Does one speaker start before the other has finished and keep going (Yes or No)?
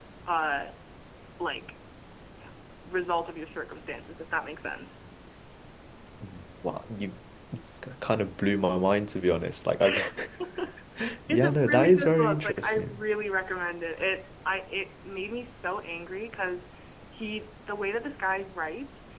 Yes